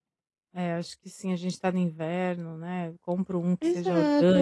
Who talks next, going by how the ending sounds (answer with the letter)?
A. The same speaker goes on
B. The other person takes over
B